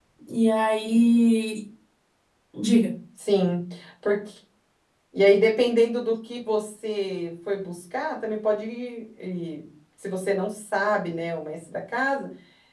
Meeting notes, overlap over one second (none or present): none